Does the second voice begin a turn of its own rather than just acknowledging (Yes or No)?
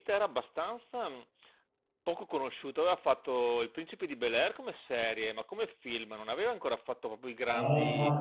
Yes